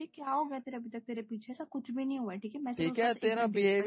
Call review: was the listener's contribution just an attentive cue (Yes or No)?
No